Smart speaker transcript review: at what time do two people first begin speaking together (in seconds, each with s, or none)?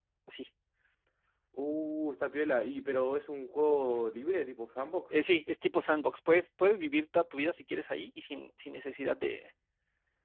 none